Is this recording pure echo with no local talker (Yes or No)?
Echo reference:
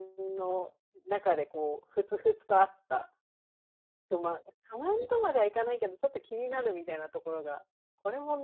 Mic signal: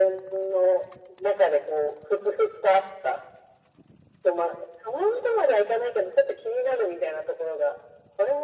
Yes